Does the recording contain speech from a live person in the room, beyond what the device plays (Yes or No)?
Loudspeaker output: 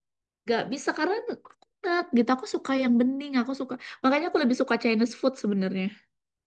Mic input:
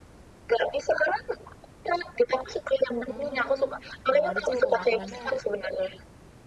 Yes